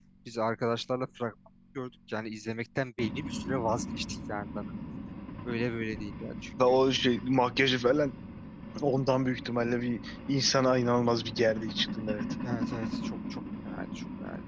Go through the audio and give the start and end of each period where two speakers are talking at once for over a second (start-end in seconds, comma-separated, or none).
none